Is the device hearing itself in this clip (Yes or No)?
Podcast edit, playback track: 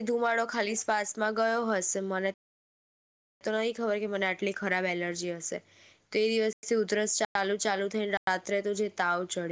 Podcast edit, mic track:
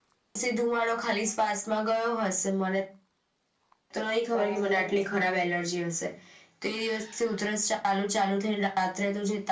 Yes